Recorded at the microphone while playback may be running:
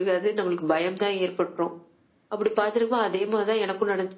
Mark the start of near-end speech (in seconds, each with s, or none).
none